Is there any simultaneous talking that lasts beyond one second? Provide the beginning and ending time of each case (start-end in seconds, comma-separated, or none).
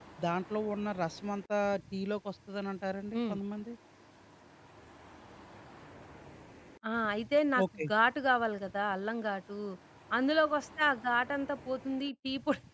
none